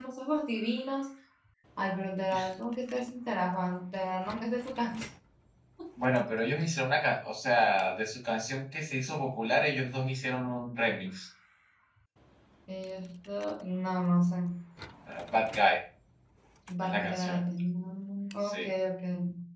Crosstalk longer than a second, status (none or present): none